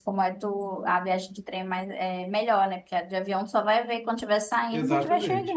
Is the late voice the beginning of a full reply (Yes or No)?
Yes